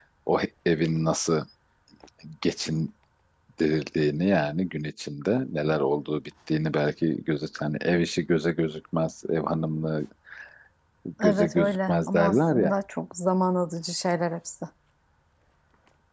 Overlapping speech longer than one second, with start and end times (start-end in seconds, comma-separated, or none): 11.2-12.7